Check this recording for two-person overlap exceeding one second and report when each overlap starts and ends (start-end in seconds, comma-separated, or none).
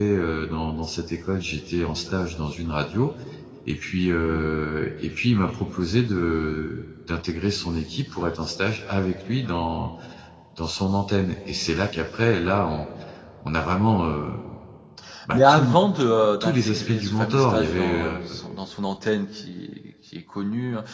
16.4-18.2